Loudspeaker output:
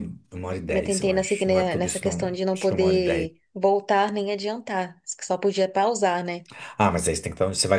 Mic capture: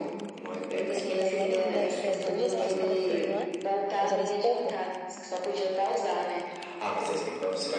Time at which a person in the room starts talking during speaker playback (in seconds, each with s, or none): 1.0 s